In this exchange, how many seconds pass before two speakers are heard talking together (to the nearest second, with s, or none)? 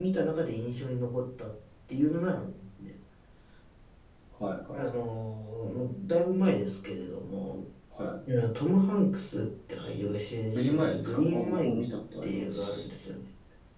11 s